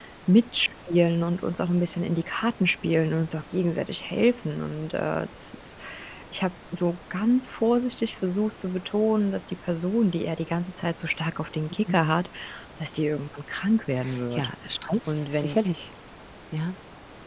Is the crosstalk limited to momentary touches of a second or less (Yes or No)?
Yes